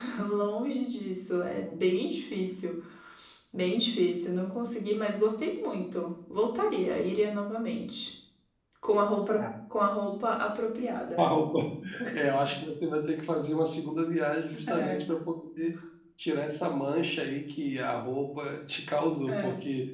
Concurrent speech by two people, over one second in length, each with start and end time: none

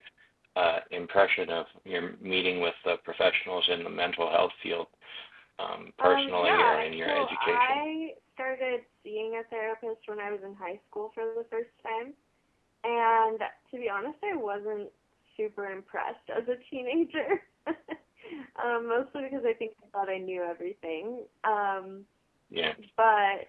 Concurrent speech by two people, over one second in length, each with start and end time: 6.0-7.8

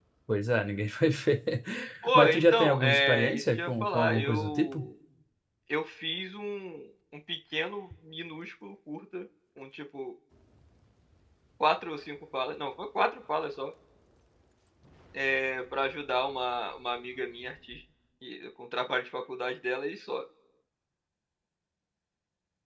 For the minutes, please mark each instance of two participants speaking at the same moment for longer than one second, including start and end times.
2.1-4.8

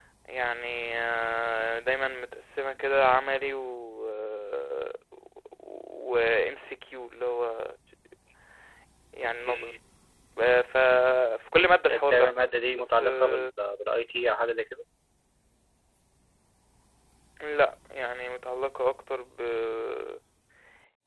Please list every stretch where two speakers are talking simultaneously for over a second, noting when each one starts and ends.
12.1-13.5

